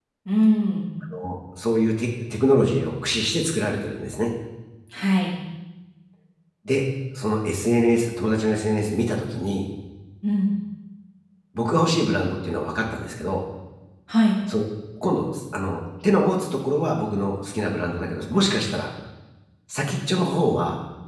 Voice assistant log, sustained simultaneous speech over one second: none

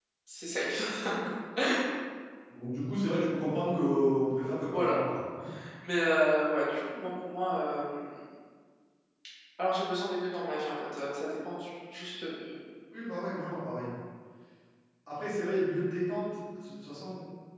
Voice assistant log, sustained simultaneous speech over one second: none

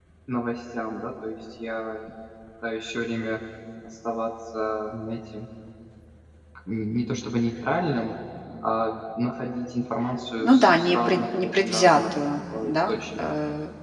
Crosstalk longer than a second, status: present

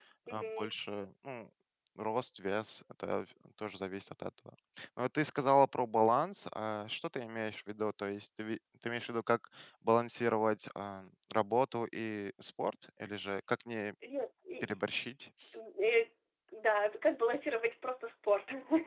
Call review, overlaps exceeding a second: none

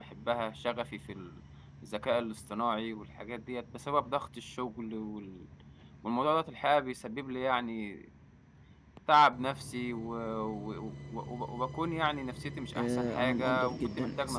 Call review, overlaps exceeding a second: present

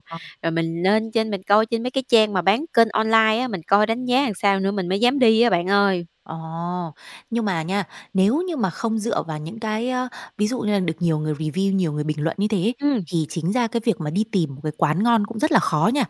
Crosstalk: none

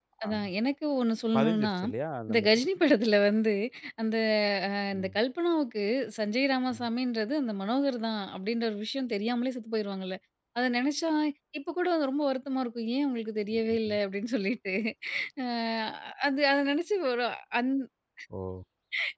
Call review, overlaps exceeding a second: none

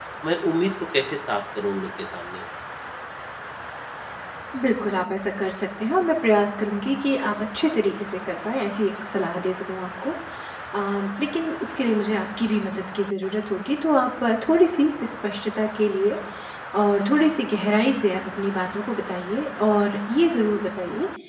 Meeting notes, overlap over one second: none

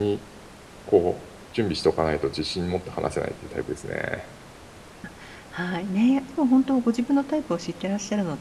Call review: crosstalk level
none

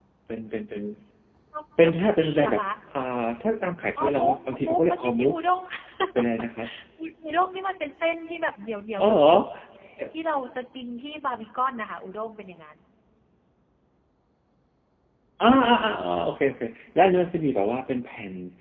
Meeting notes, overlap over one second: present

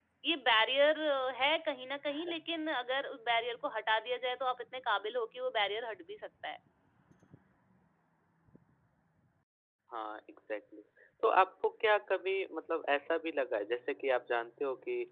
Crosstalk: none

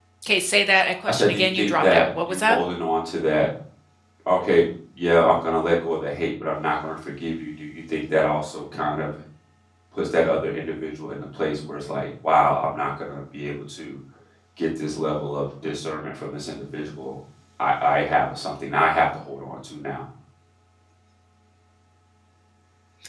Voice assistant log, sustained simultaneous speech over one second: present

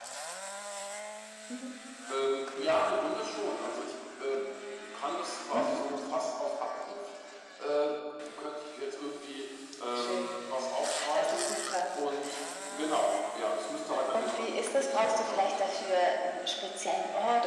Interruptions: present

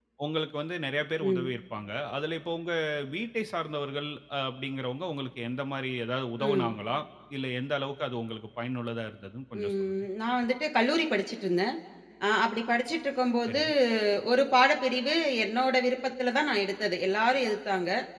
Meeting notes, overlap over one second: none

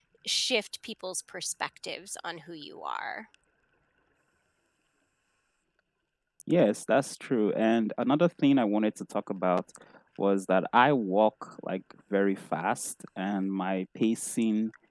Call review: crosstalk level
none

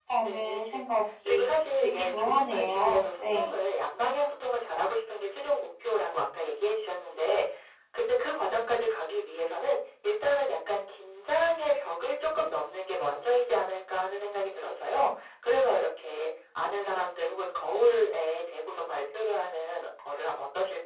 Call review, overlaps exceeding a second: present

